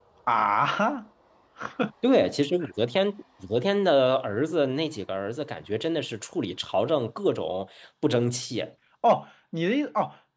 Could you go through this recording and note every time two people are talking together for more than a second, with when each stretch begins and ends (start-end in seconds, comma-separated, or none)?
none